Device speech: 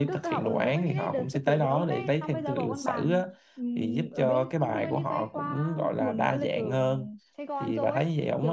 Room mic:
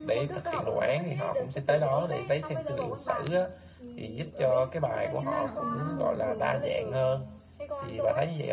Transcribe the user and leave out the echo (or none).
nên là nó cũng đang muốn kiểu